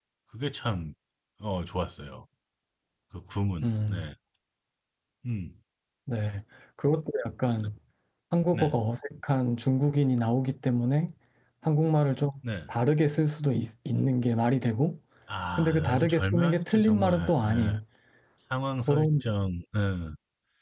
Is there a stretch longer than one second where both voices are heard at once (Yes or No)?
Yes